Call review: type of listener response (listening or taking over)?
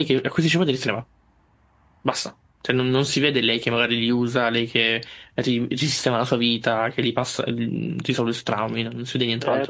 taking over